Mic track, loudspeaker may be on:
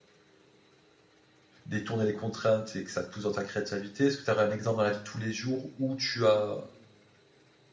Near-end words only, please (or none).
détourner les contraintes et que ça te pousse dans ta créativité, est-ce que tu aurais un exemple dans la vie de tous les jours où tu as